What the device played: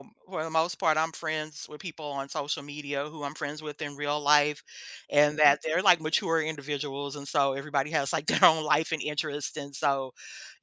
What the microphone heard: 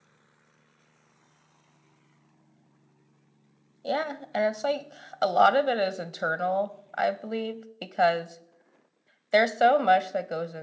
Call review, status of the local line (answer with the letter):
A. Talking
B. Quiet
A